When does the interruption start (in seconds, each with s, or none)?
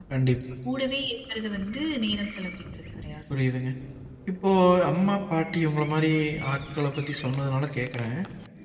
none